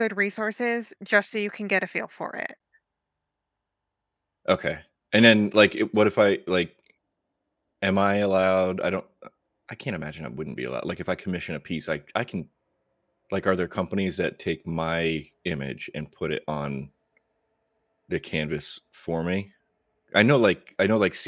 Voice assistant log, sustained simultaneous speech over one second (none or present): none